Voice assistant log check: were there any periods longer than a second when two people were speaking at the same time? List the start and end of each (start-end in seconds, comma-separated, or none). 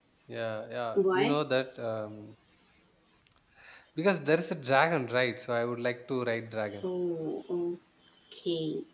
none